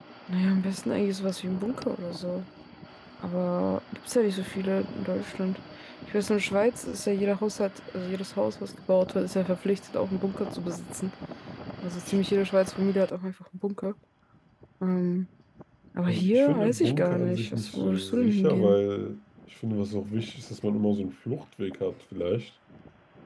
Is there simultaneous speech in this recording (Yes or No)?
Yes